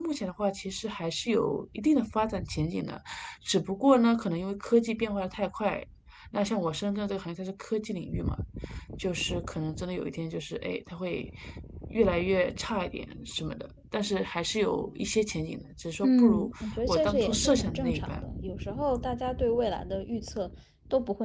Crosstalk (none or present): present